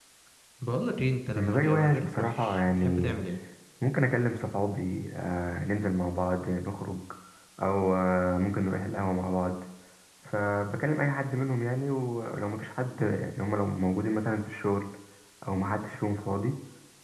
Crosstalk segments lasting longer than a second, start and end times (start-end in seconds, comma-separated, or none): 1.4-3.2